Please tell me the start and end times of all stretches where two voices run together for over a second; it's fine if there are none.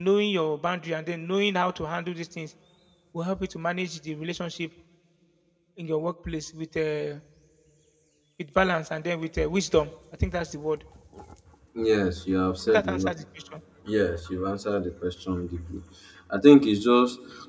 none

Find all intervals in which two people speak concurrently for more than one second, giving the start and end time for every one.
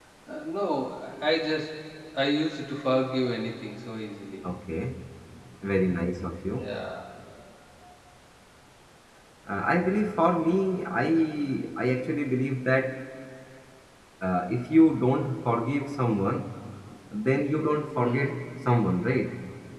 none

